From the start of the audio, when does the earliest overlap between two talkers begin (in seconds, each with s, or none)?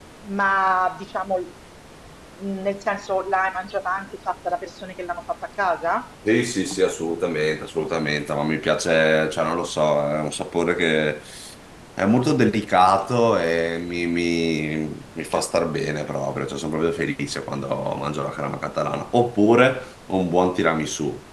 none